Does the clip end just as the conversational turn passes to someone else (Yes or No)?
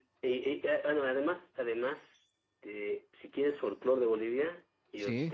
No